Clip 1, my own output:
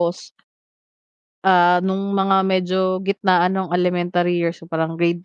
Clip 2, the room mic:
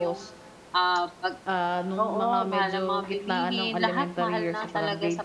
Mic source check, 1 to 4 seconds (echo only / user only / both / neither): both